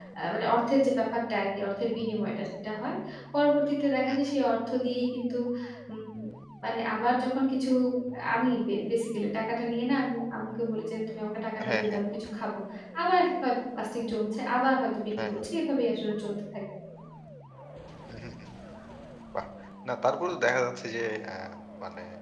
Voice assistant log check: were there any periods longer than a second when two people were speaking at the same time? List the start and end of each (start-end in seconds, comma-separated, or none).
none